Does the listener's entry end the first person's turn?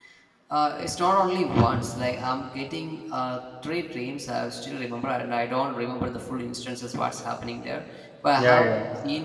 No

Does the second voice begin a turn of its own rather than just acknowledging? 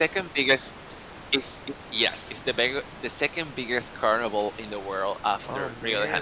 Yes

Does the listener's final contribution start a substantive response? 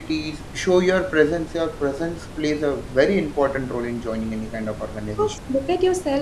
Yes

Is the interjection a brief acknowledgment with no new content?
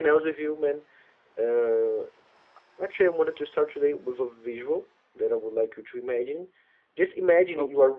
Yes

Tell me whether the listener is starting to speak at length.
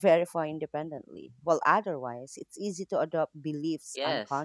Yes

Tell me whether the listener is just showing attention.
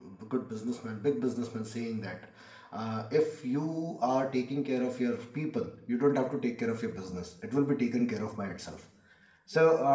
Yes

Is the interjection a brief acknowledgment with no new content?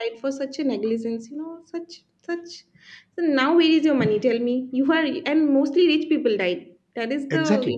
No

